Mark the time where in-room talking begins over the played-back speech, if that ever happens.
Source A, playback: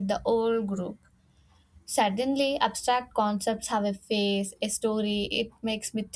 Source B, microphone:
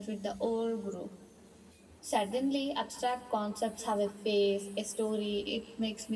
none

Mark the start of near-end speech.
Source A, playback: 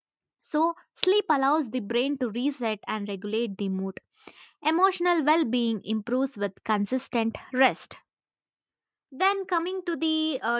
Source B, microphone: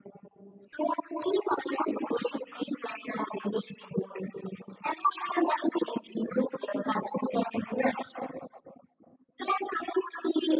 none

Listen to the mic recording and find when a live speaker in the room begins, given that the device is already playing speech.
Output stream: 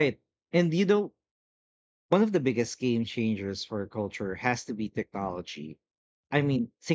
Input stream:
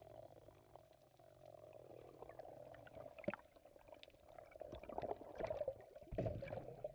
none

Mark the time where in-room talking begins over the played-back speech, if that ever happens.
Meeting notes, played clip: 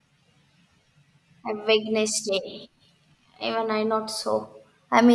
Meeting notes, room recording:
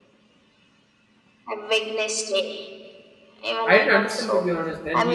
3.6 s

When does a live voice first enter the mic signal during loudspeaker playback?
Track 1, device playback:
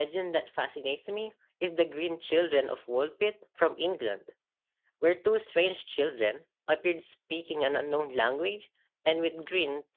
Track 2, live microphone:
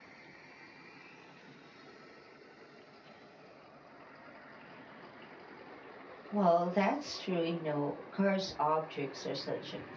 6.3 s

